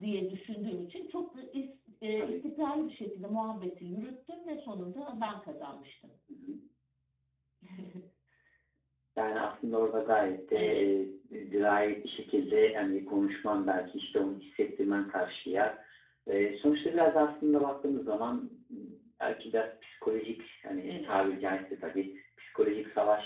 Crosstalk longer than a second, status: none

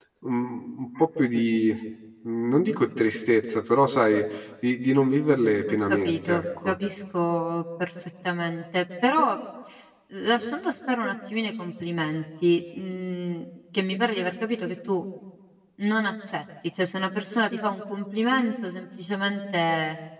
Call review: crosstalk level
present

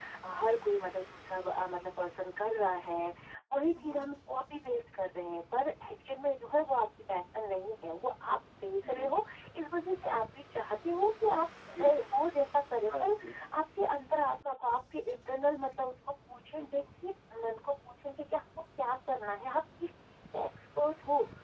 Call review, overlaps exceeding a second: none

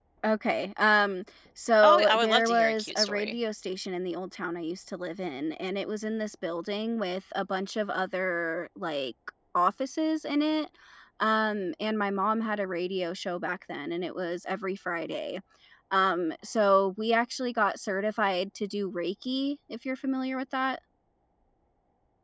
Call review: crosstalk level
present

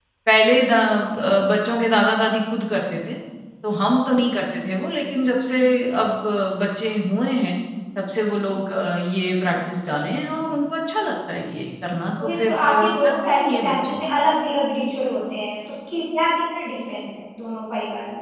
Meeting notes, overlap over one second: present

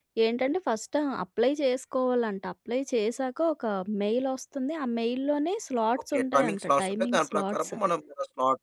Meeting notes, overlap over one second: present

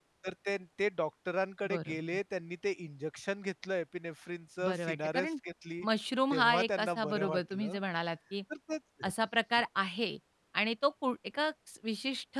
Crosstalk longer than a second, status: present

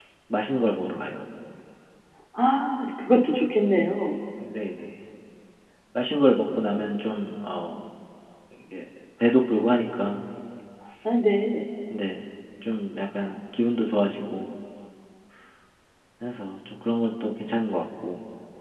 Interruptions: none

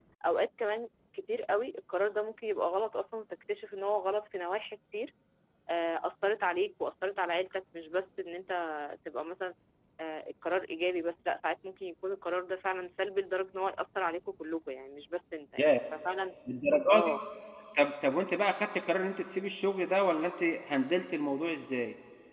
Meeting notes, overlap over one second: none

